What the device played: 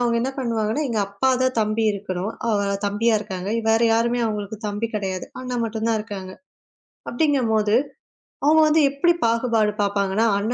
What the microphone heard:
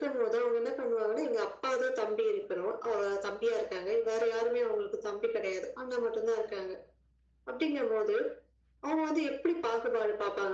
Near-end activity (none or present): none